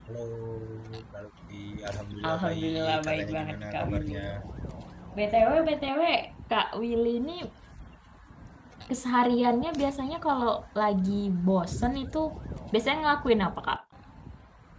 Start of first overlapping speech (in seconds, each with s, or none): 2.2 s